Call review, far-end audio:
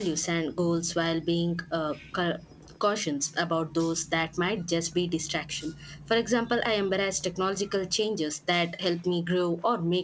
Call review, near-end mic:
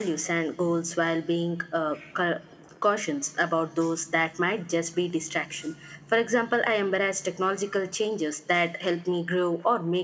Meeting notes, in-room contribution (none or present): none